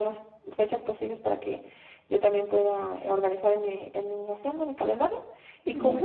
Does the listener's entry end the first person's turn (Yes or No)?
No